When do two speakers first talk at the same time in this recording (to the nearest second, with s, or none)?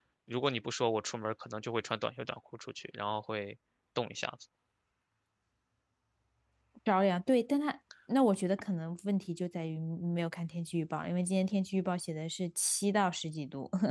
none